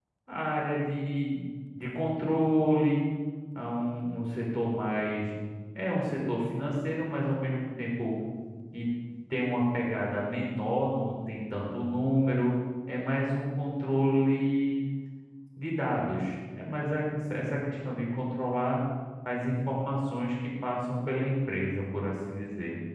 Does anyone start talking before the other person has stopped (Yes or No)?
No